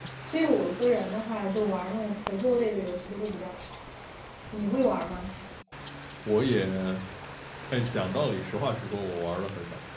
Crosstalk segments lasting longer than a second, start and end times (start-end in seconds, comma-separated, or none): none